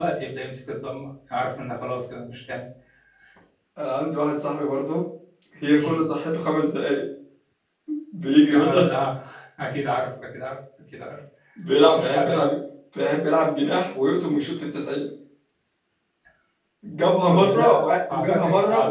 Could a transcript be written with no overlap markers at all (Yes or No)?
No